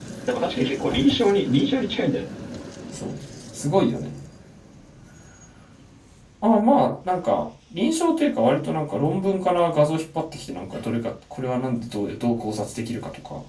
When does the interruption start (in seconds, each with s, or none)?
none